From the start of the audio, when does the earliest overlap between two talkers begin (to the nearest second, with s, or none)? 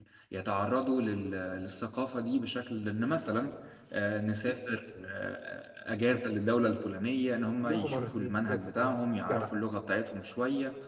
8 s